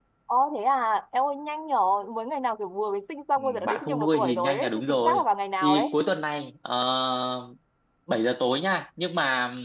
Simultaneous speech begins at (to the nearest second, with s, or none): 3 s